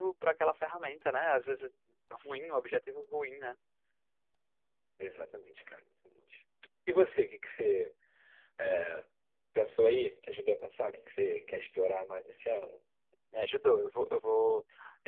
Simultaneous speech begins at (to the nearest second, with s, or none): none